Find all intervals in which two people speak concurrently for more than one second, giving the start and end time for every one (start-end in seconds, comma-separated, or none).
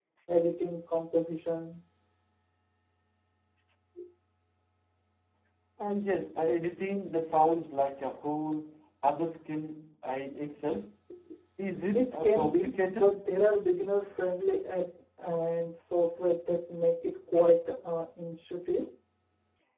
11.9-13.2